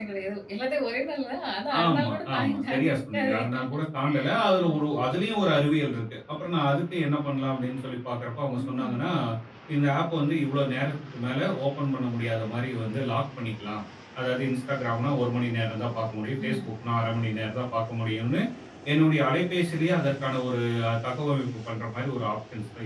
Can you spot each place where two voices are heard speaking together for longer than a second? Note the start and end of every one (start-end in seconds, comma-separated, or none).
1.9-3.4